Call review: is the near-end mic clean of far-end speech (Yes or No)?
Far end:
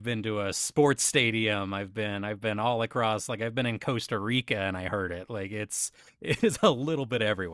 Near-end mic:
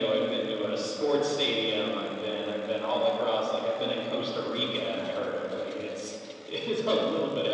No